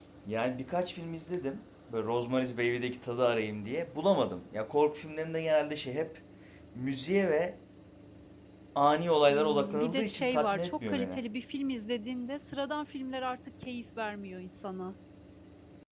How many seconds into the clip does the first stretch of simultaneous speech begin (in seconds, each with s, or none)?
9.3 s